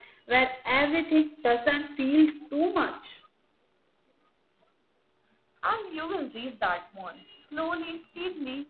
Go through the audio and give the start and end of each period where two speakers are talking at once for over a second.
none

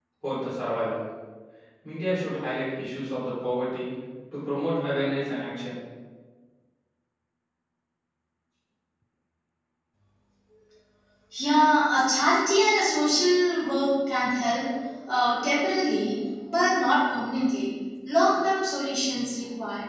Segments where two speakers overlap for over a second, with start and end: none

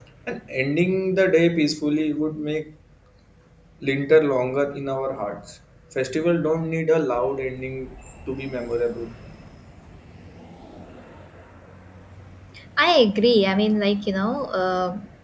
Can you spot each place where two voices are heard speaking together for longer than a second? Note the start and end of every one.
none

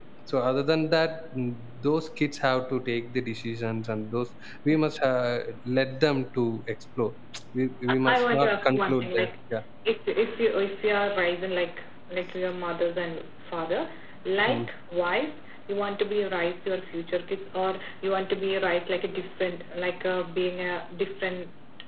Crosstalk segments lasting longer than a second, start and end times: 8.0-9.3

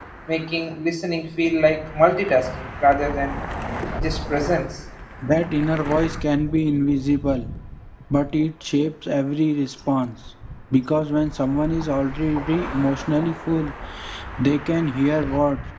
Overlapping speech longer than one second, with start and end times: none

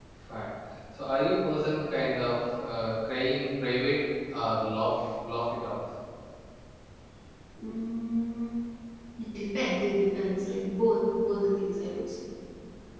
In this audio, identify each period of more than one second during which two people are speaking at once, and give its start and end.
none

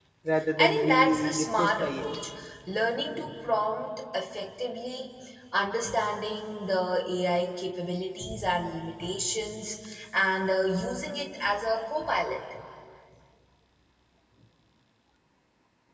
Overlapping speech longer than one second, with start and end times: 0.6-2.0

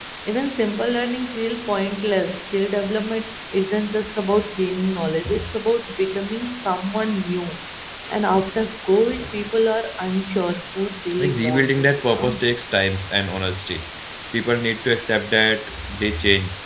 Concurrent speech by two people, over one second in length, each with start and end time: 11.2-12.5

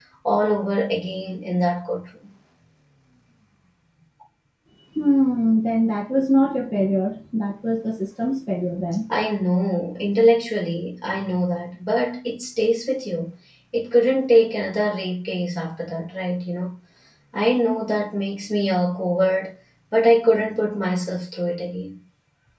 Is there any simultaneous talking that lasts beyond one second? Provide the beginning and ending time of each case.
none

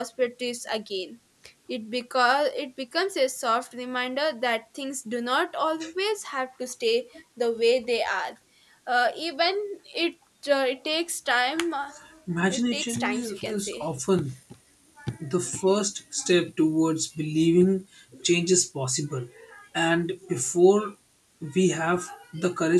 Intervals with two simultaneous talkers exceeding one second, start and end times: 12.5-13.8

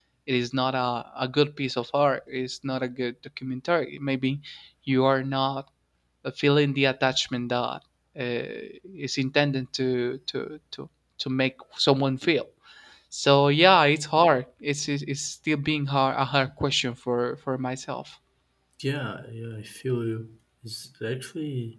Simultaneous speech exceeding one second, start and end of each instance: none

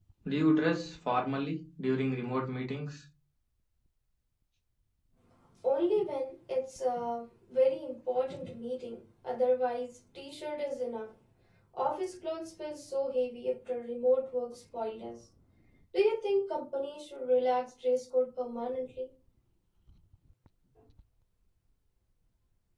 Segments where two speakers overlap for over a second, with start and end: none

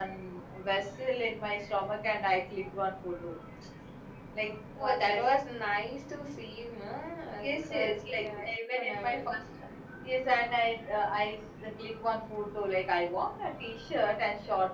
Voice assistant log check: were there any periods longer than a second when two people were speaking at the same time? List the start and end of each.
7.4-9.4

